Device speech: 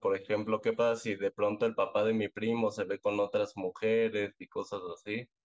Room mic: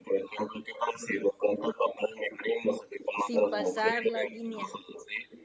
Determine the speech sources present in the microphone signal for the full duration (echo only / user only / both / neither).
both